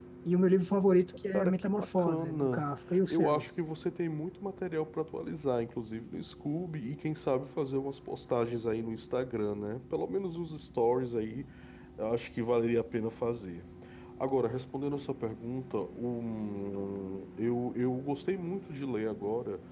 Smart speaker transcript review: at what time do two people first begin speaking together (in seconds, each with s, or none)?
1.3 s